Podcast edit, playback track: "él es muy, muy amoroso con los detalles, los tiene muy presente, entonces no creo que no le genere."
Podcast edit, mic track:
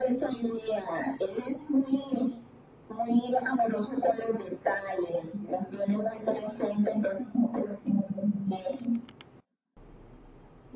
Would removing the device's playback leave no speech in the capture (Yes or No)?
Yes